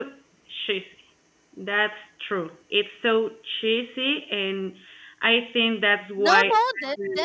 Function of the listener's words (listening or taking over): taking over